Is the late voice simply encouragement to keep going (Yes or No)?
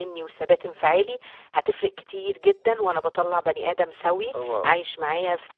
Yes